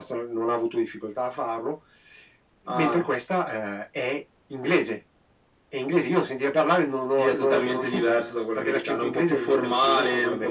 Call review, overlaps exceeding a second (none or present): present